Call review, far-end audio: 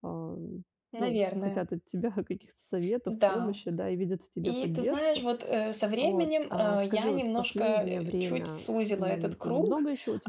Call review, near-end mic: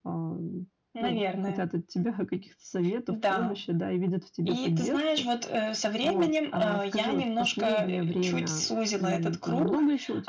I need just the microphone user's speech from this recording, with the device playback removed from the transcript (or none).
none